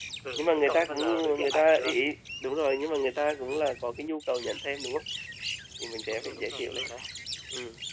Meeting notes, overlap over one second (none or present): present